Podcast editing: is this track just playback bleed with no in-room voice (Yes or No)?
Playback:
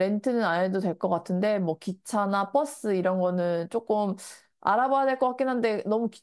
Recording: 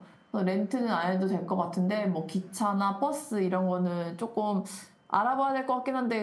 Yes